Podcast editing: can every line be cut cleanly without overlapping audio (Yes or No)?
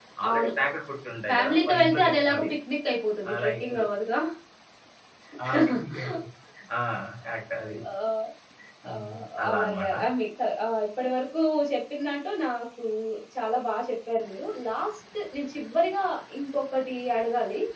No